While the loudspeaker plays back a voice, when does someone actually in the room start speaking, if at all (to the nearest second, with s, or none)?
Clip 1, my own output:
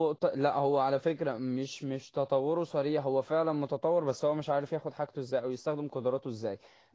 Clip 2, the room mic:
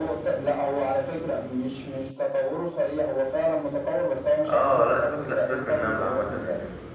4 s